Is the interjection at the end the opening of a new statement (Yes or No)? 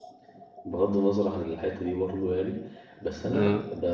No